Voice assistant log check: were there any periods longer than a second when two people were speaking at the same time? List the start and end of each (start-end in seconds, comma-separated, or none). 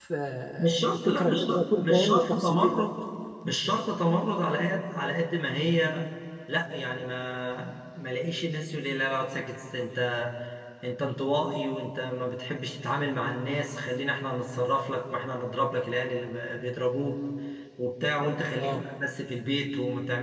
0.6-2.8